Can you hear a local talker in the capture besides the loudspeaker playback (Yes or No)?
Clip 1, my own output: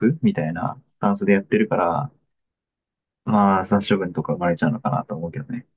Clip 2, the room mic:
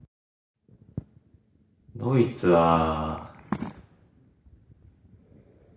Yes